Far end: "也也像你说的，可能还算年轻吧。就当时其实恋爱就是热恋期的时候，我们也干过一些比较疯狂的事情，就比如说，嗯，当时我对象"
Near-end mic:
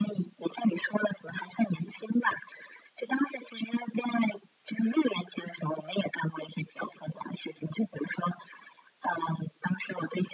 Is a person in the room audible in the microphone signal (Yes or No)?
No